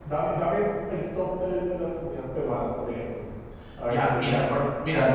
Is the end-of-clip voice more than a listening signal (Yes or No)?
Yes